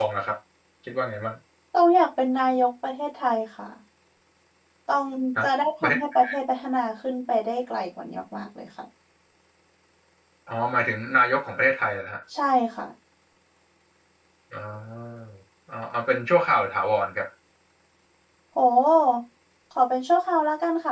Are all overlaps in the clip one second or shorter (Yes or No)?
Yes